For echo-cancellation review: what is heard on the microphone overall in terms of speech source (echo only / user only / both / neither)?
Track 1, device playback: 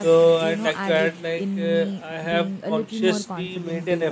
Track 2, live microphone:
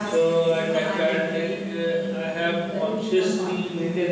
echo only